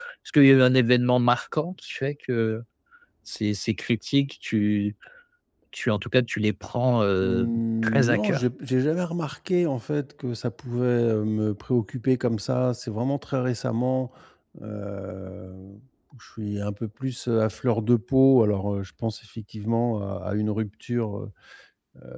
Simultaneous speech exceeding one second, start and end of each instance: 7.2-8.4

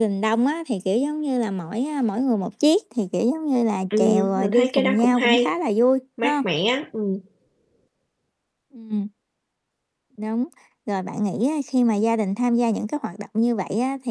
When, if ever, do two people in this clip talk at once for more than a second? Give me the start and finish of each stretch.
4.0-5.5

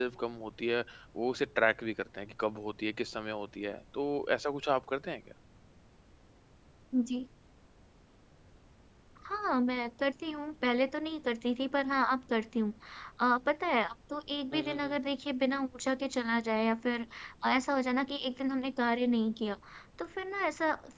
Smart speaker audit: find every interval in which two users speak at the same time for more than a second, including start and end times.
none

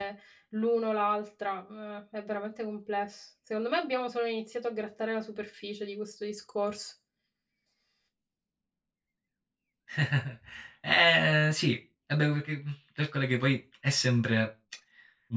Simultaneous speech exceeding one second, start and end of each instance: none

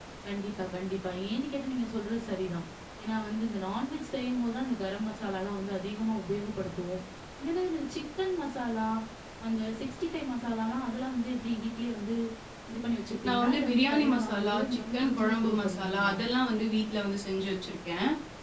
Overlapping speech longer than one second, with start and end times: 13.3-16.1

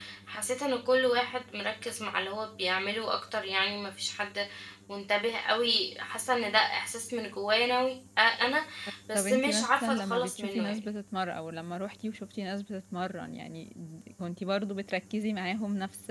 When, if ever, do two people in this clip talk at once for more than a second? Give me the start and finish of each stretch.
9.1-10.8

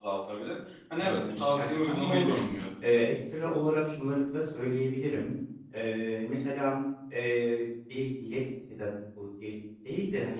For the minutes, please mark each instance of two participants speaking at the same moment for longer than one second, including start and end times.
1.0-2.5

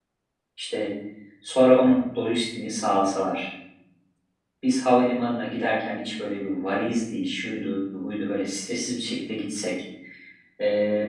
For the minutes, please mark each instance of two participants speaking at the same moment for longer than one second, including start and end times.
none

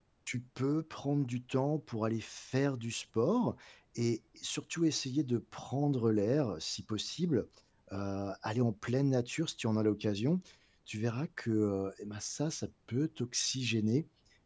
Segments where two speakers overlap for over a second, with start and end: none

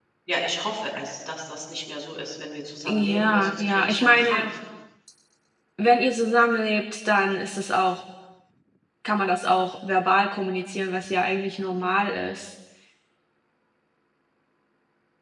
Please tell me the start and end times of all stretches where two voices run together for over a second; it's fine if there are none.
2.9-4.5

